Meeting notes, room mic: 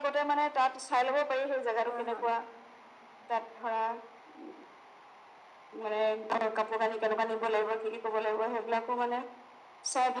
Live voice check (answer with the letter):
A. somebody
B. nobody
A